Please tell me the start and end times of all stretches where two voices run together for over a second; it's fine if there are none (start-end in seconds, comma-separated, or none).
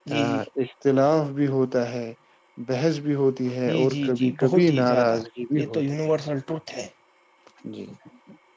3.7-5.2